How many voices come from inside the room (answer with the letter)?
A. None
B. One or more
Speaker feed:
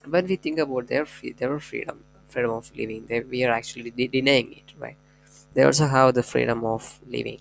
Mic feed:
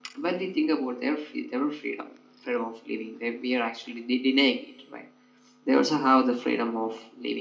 A